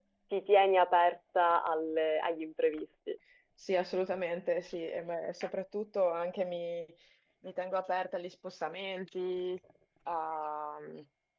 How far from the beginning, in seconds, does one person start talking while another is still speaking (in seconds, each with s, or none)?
none